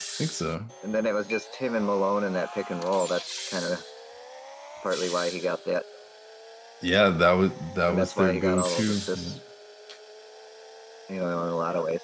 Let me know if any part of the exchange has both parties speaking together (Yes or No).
Yes